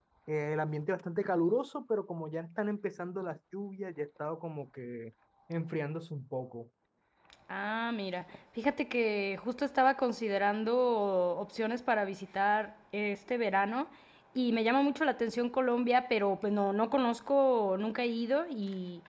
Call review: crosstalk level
none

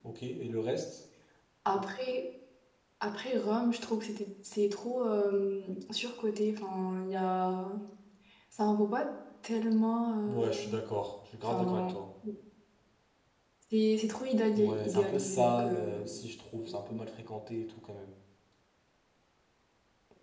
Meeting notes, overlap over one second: present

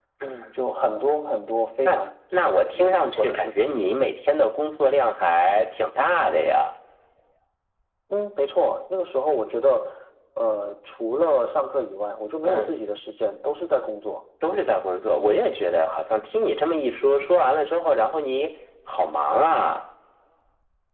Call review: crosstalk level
present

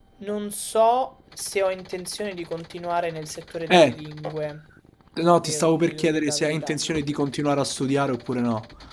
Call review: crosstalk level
present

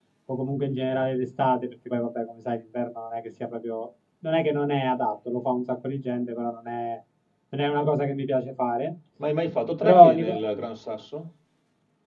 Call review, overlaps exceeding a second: none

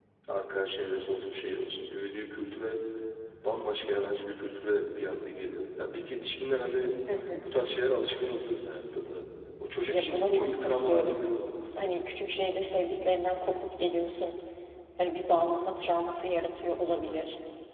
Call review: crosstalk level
present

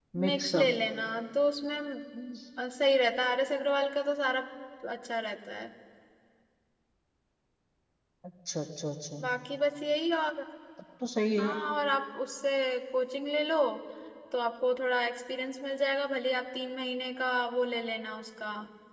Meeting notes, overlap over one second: none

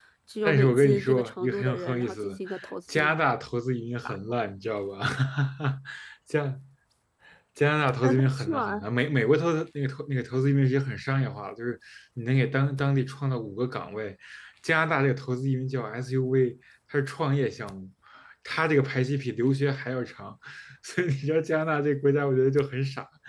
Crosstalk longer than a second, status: present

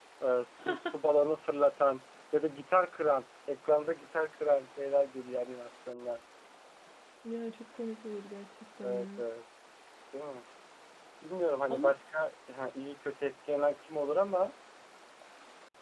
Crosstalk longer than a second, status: none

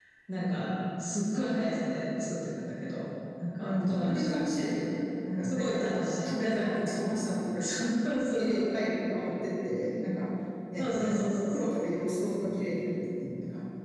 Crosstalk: present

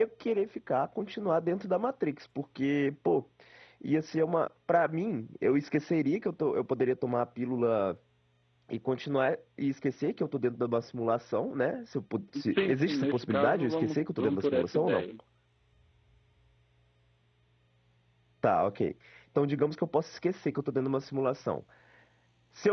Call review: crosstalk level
present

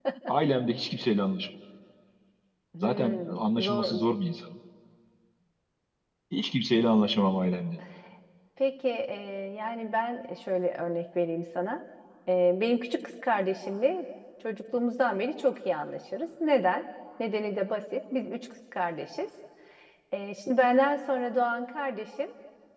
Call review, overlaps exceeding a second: present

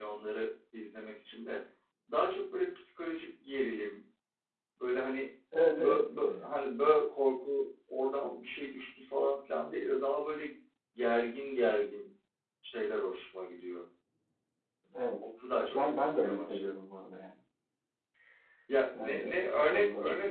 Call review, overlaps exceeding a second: present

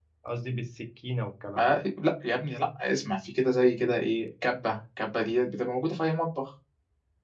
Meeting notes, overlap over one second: none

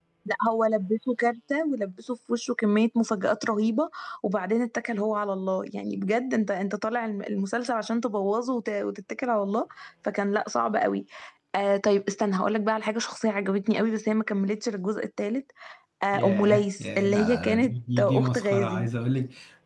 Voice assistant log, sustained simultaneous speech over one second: present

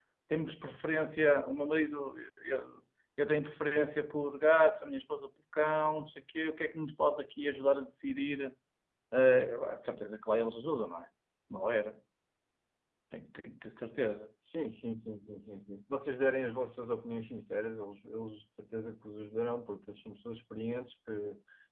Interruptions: none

